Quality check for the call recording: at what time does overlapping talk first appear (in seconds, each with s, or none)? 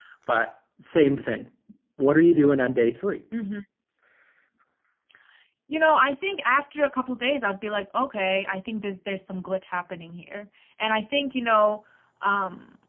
none